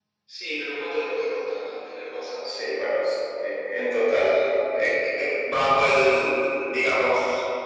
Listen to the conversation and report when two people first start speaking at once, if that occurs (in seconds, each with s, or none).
none